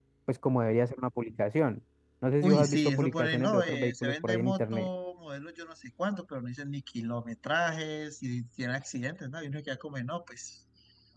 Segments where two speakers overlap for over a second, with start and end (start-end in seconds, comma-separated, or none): 2.4-4.9